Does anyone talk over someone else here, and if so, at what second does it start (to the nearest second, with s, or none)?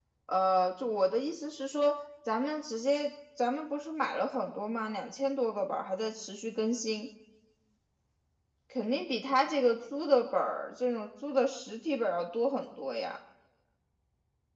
none